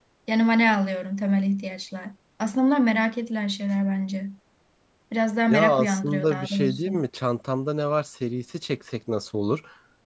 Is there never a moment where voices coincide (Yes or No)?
No